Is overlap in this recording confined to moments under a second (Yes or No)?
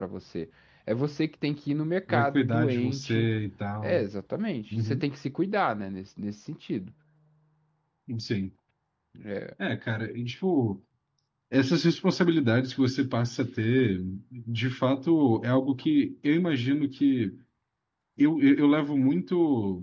No